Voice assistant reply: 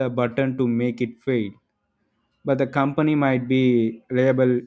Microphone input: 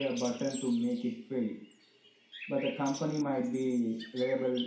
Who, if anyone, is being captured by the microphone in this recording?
echo only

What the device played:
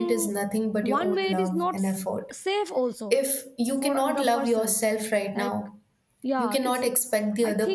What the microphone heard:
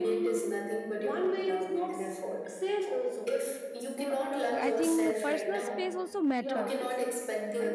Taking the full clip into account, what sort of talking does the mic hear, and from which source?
both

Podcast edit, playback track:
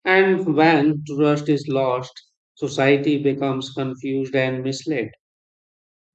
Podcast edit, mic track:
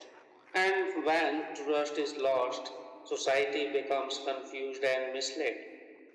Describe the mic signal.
echo only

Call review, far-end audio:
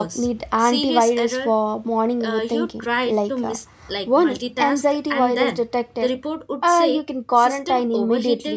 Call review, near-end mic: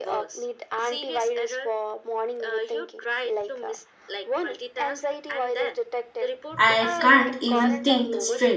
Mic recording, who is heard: both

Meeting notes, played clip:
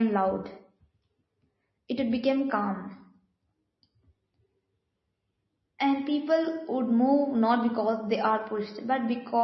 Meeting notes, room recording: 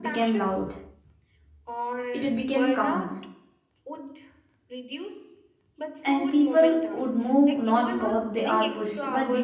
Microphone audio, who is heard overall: both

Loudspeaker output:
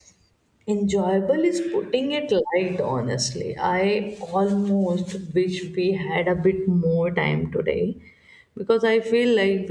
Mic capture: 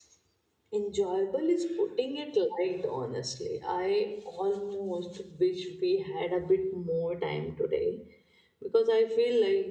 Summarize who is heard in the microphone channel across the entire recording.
echo only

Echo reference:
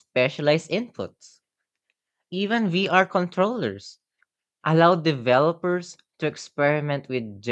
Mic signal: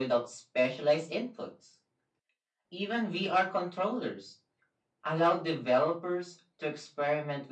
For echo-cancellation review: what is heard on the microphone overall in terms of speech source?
echo only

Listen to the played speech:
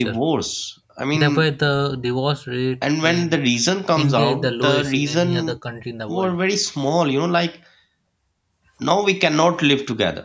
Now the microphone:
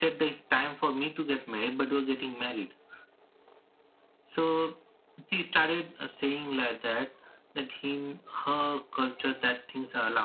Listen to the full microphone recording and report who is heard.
user only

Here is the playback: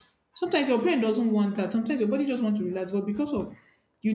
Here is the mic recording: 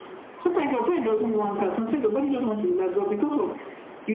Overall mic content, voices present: echo only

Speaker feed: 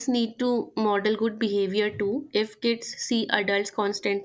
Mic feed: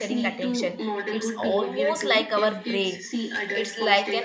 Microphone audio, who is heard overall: both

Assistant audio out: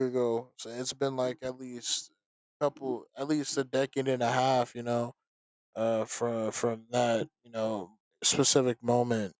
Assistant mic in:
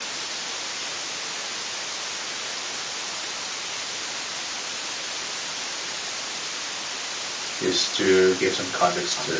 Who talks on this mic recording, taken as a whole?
user only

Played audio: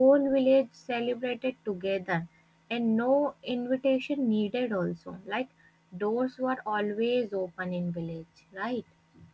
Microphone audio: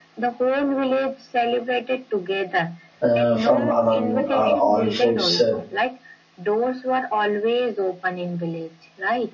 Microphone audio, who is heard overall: both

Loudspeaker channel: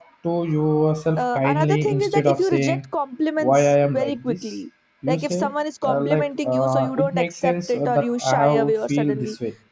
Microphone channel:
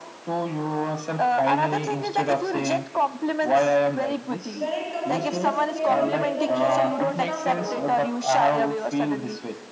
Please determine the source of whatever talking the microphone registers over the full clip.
both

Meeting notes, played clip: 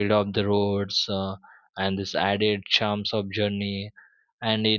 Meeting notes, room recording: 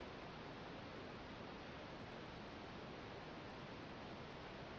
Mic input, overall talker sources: neither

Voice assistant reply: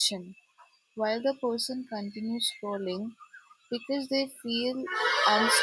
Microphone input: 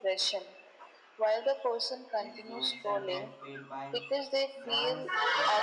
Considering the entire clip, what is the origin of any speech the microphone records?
both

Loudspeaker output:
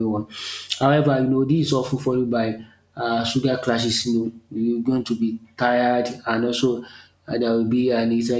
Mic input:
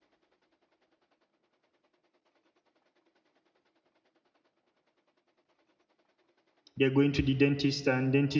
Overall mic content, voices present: user only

